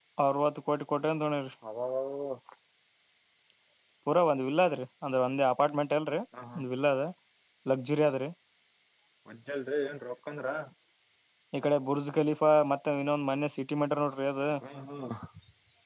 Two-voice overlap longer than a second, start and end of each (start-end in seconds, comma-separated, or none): none